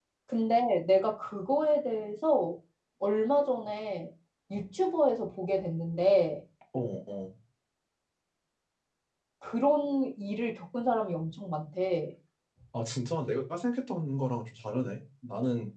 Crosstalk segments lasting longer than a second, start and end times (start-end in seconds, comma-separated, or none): none